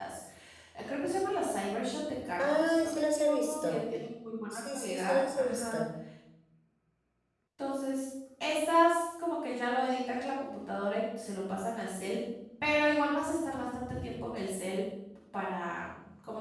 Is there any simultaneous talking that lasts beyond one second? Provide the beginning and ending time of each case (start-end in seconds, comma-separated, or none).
2.4-3.8, 4.5-5.8